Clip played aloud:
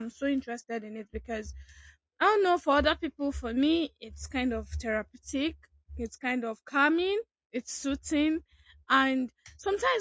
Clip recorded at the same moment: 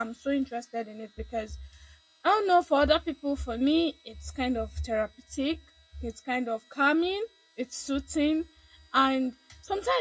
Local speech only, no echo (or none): none